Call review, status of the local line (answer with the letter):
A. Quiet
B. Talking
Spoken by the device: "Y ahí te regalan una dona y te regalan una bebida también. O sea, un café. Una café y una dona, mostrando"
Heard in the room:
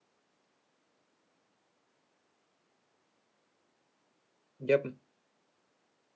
B